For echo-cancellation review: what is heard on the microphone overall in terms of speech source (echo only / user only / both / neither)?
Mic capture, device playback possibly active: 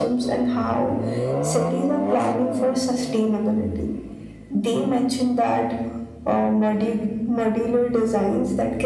echo only